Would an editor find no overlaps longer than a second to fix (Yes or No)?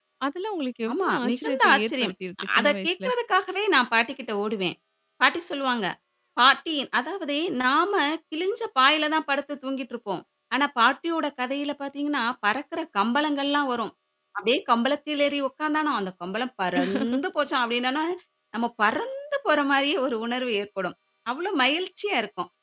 No